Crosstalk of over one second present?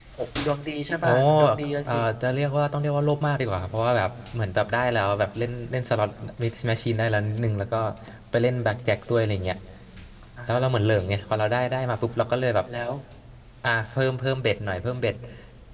No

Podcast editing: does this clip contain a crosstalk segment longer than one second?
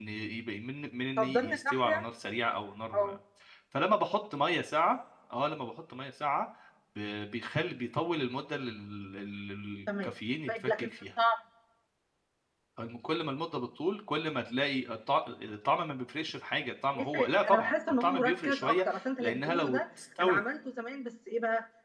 Yes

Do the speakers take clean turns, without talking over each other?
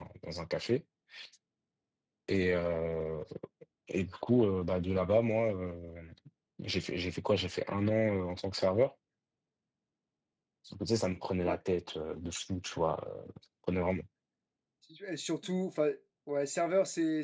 Yes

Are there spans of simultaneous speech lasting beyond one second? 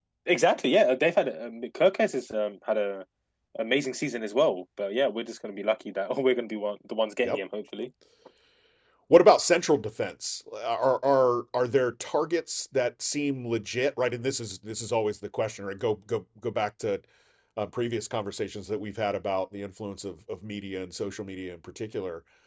No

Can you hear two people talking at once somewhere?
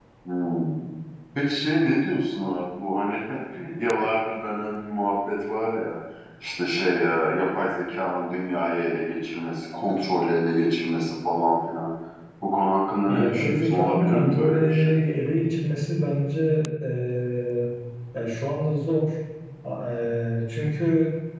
Yes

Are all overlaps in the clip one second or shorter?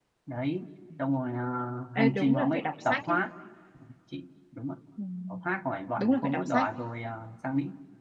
No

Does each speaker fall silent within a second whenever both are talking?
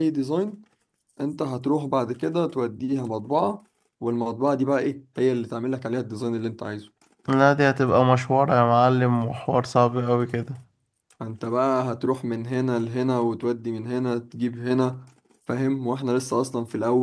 Yes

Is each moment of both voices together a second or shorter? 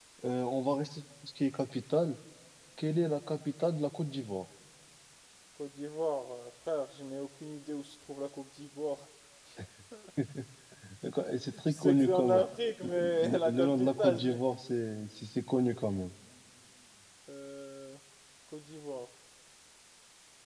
No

